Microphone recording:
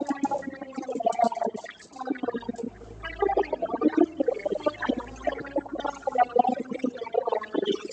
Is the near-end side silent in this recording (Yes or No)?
Yes